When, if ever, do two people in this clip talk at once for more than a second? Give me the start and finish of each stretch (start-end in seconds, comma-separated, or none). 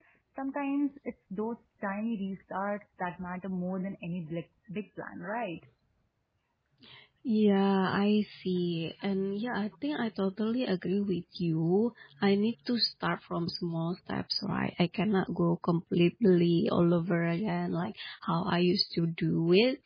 none